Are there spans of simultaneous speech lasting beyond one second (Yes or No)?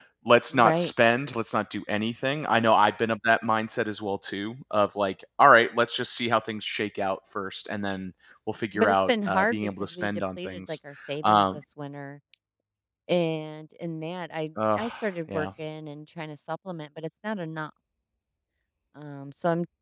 Yes